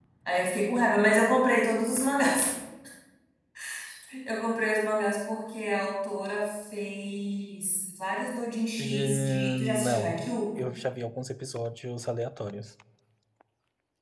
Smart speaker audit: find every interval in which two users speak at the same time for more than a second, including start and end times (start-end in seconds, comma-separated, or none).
8.8-10.3